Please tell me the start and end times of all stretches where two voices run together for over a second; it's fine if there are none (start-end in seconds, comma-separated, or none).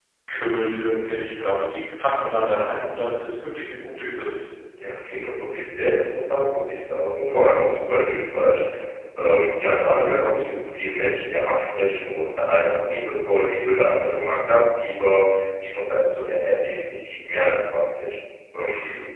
none